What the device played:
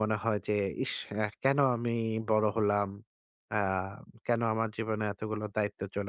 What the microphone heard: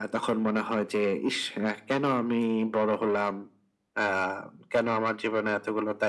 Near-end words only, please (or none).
none